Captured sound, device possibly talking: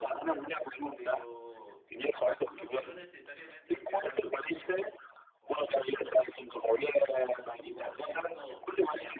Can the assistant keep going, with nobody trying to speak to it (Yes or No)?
No